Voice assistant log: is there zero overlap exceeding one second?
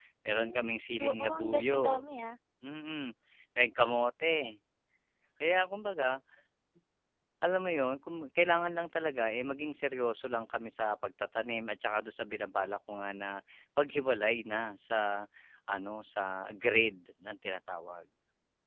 No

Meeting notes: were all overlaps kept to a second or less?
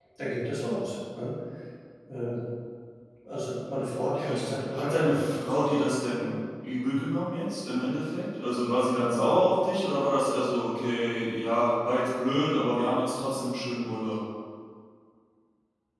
No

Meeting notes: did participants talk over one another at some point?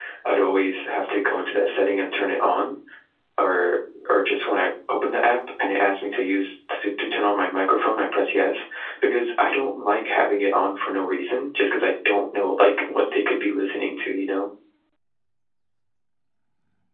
No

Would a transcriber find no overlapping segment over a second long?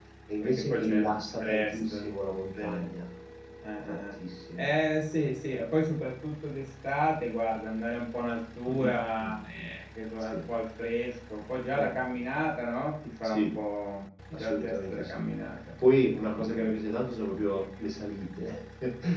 No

